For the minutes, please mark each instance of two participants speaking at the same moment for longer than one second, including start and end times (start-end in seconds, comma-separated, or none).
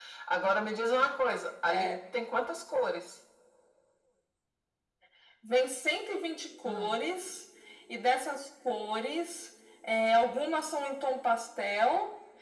none